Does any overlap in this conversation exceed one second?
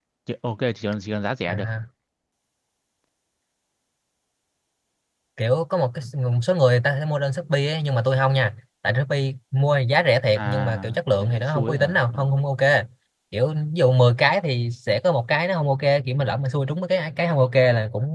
Yes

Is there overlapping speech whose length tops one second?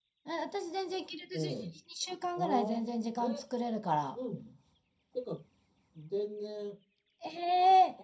No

